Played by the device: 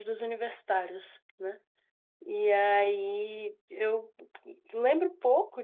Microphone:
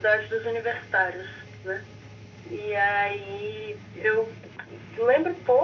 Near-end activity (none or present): none